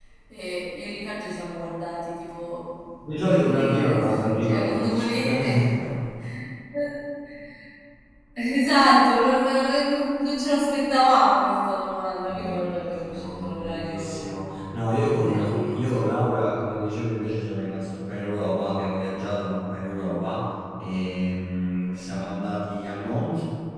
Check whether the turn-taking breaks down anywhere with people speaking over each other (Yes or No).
Yes